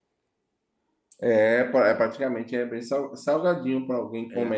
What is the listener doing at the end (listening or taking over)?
listening